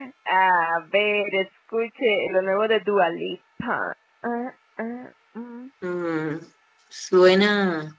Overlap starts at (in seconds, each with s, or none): none